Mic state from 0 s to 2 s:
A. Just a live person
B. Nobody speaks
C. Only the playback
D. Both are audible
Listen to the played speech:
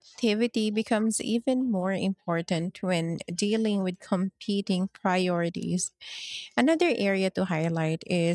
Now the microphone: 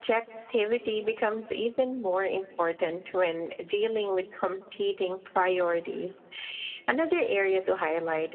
C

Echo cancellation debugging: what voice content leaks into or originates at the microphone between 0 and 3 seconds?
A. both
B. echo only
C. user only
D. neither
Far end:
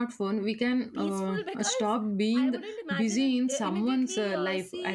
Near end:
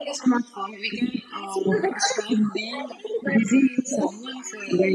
B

